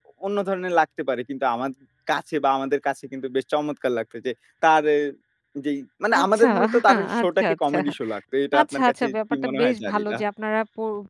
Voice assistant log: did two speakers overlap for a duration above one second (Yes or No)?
Yes